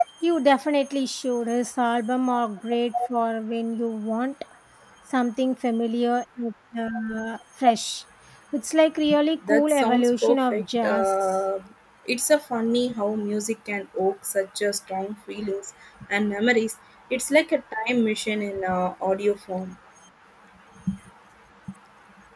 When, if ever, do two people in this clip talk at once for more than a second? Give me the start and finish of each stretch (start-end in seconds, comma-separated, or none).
9.5-11.1